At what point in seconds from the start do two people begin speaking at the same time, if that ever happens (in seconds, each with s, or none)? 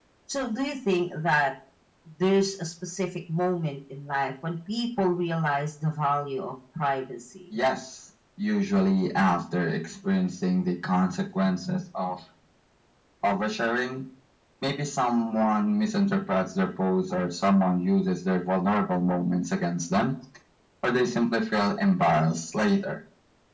none